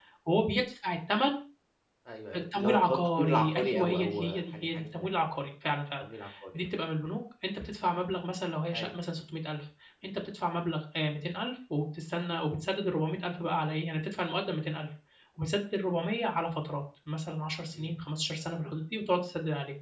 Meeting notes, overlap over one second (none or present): present